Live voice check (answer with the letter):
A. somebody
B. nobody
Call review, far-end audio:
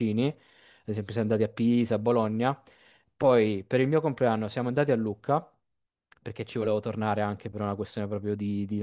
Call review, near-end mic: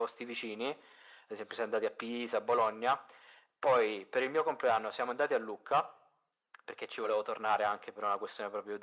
B